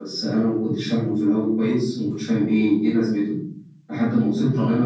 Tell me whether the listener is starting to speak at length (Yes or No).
No